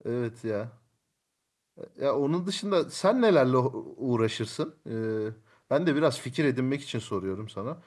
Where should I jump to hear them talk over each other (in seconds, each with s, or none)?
none